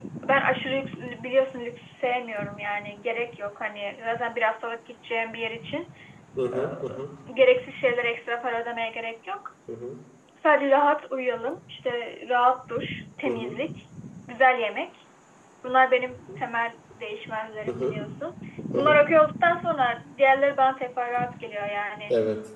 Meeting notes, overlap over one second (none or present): none